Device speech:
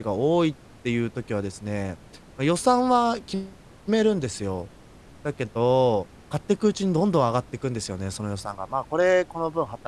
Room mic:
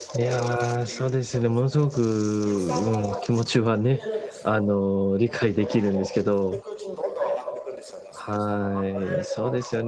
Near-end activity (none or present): present